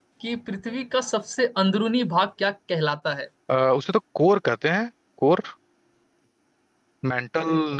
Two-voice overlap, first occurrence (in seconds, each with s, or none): none